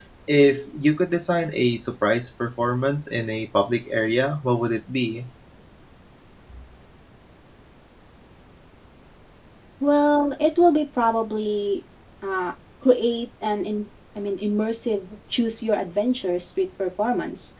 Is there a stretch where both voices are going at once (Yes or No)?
No